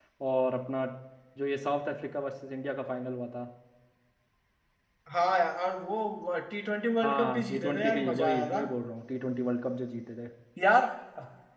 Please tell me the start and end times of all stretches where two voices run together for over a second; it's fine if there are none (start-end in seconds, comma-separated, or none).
7.0-8.6